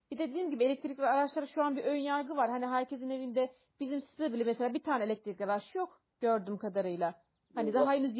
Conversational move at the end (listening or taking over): listening